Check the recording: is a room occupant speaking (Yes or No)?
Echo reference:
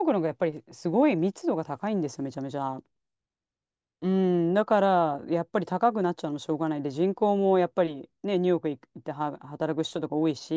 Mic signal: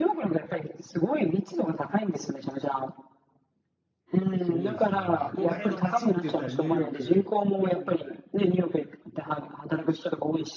Yes